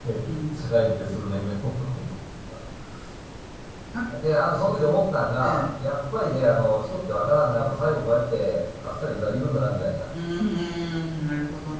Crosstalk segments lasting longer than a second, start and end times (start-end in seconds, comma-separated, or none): none